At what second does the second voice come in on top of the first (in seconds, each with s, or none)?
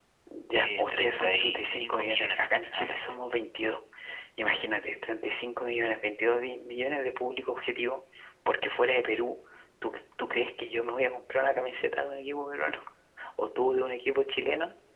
0.5 s